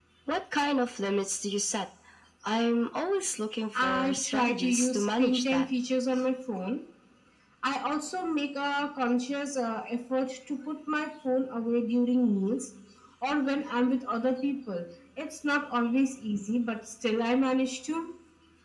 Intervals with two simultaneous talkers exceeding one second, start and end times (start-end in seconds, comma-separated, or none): 3.8-5.7